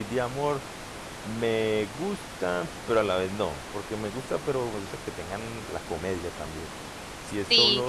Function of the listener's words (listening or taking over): listening